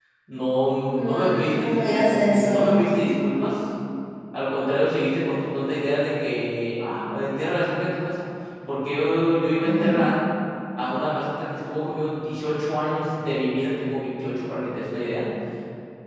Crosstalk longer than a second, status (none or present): present